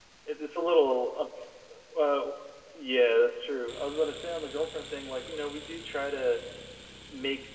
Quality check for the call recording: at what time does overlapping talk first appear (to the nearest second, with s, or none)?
none